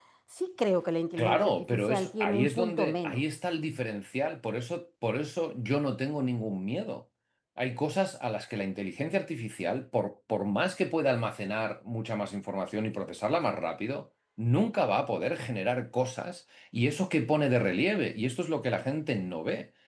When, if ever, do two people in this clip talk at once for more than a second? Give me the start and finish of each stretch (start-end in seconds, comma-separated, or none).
1.2-3.2